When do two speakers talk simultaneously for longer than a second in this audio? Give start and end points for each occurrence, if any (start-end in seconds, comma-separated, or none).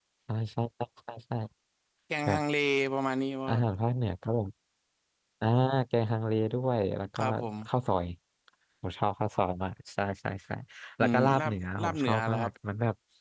11.0-12.5